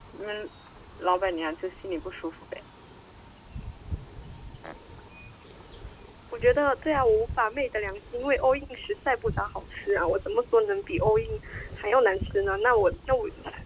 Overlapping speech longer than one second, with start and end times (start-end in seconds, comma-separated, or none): none